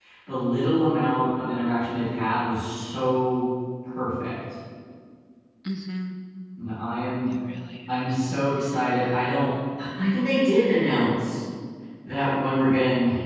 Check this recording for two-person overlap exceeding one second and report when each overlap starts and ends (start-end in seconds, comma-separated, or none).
none